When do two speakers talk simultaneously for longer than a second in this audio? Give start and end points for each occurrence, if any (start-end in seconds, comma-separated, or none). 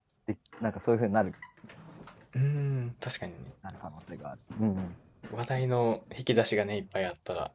none